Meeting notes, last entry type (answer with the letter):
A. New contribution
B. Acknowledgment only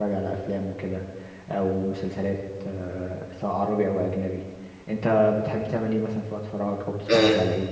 A